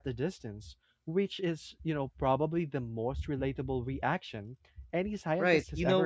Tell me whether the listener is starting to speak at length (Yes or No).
Yes